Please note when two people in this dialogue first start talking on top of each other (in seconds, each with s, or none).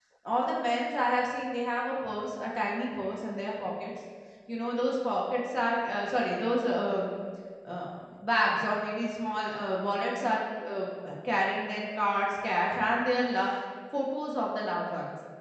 none